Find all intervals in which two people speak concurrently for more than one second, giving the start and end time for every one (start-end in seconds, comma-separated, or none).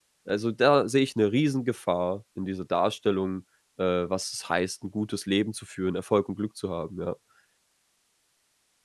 none